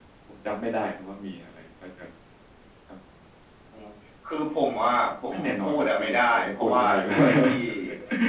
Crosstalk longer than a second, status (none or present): present